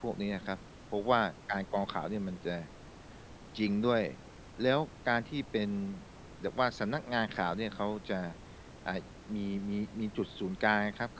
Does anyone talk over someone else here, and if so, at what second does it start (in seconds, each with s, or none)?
none